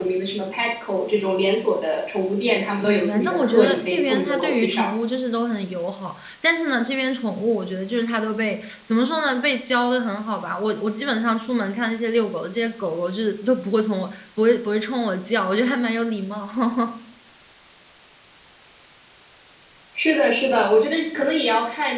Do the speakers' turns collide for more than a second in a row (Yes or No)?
Yes